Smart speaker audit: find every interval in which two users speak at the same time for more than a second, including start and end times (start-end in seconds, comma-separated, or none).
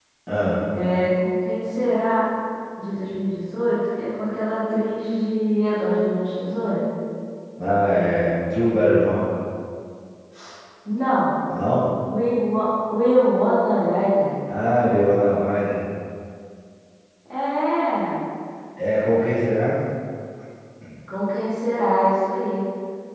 none